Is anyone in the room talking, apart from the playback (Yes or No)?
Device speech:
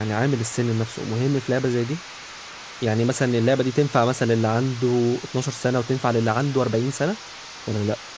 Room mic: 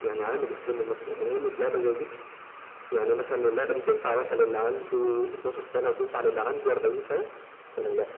No